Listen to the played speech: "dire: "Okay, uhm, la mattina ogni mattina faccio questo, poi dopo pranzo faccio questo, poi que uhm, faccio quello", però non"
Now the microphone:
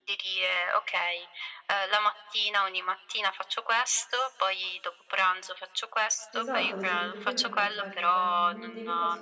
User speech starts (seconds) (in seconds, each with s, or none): 6.3 s